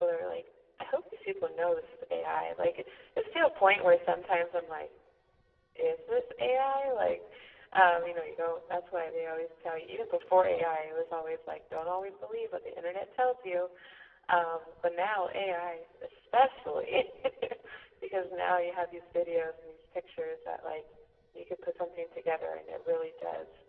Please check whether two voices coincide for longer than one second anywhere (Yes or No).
No